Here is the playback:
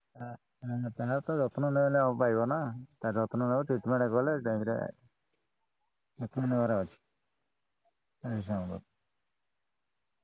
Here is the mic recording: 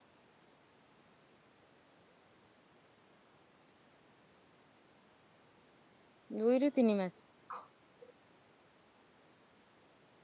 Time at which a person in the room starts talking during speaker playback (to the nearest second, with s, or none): 6 s